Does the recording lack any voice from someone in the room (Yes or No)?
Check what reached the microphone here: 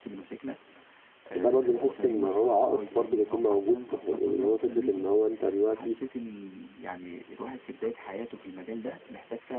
No